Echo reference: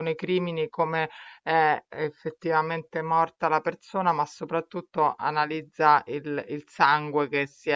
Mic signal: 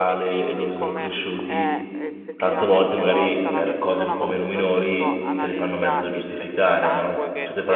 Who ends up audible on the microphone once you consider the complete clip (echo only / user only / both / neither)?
both